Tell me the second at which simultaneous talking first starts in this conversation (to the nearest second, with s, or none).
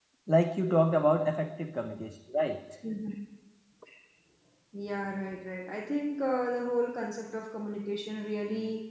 none